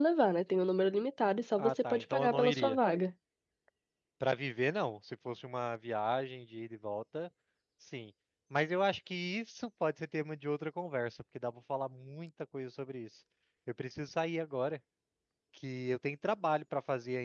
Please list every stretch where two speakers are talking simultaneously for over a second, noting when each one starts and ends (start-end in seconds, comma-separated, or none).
1.6-2.8